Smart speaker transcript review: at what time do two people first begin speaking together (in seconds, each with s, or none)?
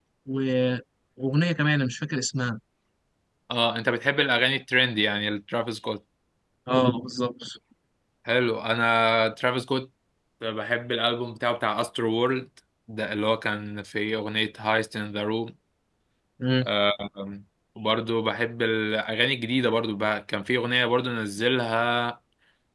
none